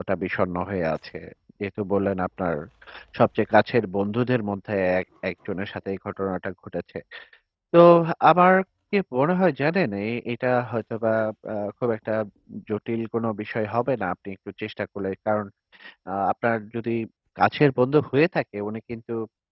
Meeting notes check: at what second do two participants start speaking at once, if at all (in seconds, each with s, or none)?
none